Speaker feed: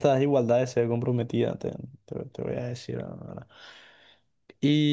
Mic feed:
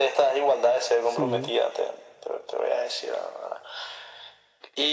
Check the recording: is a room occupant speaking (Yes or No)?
Yes